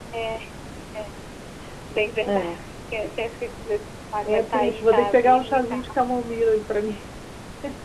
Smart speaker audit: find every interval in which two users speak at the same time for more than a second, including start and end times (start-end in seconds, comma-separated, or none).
4.2-5.7